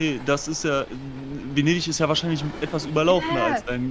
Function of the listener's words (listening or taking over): taking over